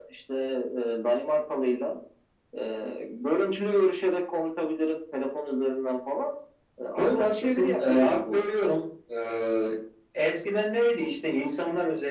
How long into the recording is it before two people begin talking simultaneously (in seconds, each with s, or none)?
7.0 s